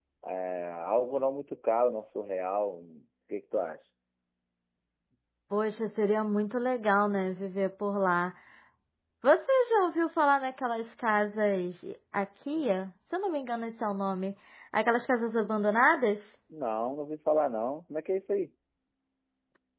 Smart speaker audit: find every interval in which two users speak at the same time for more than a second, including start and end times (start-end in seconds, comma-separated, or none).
none